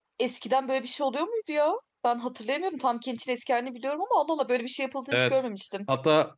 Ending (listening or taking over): taking over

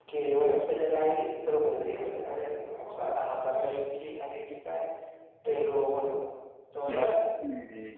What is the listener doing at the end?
taking over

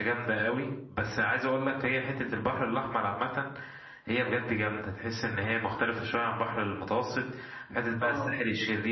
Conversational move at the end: listening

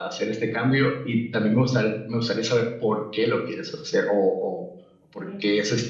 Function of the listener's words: listening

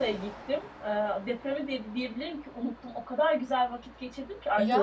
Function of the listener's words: listening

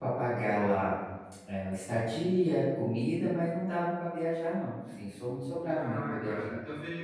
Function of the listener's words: taking over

